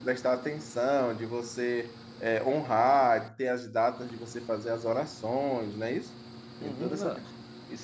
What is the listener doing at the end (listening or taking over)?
taking over